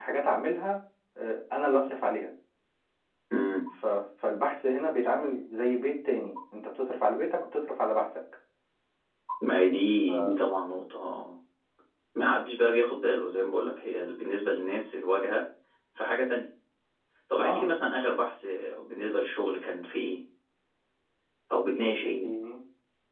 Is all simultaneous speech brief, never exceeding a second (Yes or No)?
Yes